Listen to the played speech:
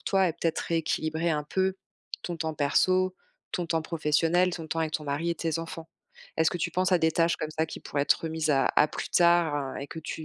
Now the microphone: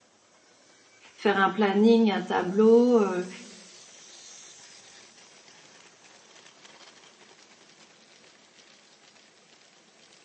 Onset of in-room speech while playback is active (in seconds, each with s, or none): 1.1 s